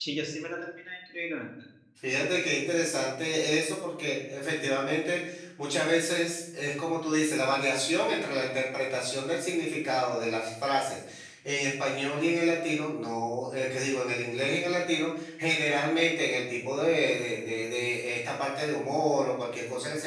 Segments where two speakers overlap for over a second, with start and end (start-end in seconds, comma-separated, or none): none